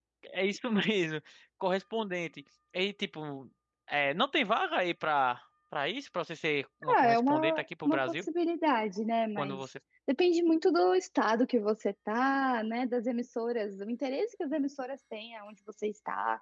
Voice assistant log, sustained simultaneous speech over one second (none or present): present